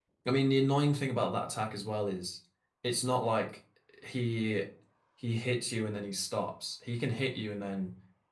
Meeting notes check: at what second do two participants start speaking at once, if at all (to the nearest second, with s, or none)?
none